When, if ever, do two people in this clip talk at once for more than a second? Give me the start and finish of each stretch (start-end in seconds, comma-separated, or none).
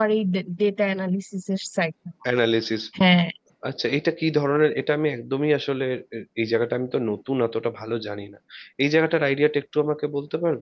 none